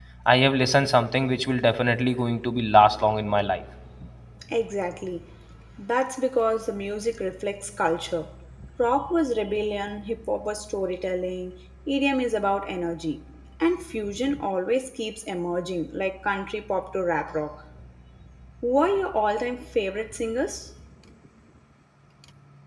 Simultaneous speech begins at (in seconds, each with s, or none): none